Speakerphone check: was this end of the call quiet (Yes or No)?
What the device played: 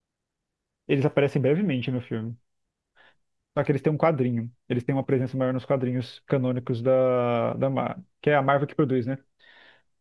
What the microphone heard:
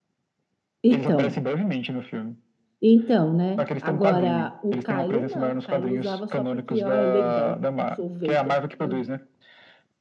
No